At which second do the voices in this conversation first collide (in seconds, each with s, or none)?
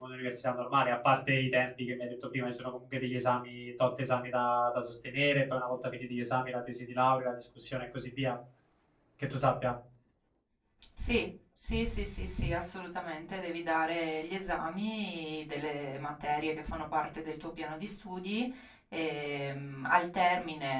none